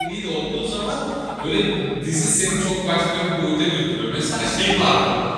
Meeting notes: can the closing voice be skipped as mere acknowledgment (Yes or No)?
Yes